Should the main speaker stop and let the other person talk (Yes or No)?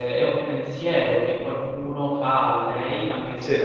No